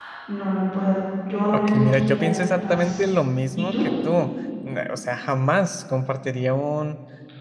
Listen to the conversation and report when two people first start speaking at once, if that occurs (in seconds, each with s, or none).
1.5 s